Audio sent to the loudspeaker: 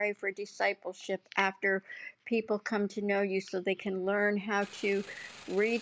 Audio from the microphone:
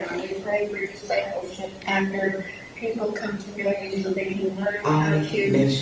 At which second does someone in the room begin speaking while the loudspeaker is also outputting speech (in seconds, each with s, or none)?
4.8 s